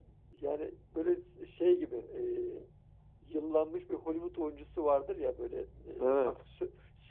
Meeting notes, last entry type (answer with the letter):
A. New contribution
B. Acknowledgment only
B